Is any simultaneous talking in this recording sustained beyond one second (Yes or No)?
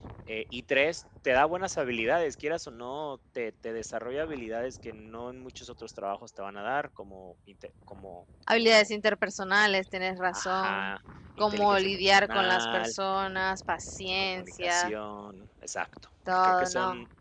Yes